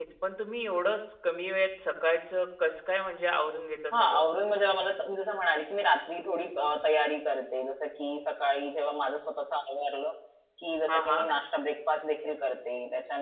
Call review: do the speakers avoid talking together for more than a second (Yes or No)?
Yes